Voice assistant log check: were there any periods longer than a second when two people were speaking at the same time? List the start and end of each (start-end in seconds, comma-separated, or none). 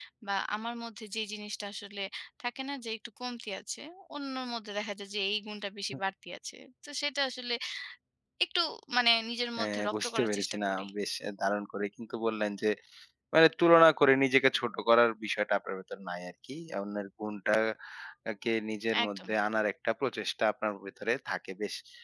9.6-10.9